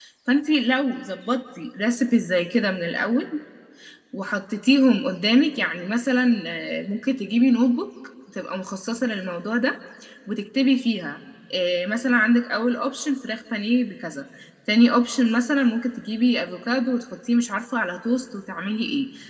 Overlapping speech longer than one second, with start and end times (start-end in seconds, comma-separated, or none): none